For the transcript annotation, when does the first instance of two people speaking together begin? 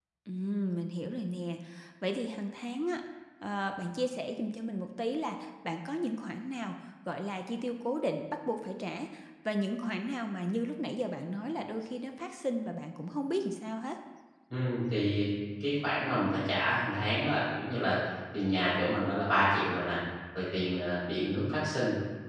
none

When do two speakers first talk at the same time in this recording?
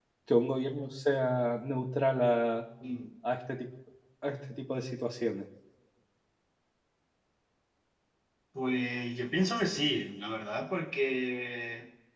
none

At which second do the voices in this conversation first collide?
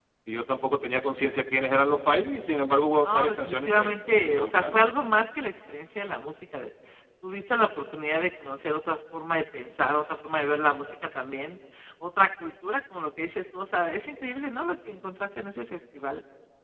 3 s

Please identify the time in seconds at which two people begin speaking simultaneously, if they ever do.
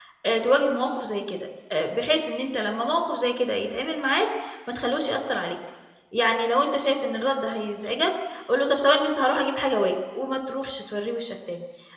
none

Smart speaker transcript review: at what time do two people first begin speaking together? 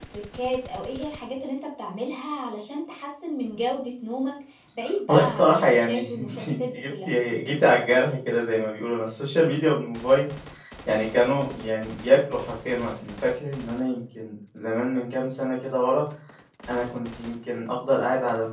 5 s

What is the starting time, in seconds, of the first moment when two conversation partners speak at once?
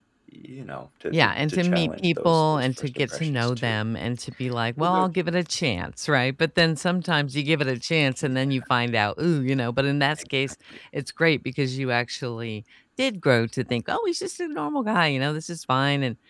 1 s

